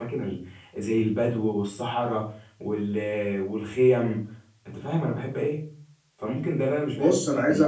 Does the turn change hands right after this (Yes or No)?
Yes